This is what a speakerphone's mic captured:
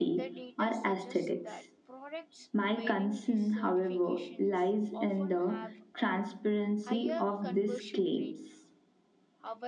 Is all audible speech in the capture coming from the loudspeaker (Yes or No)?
No